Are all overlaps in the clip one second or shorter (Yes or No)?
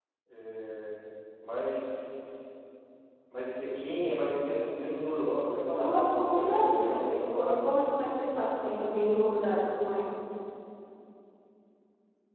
No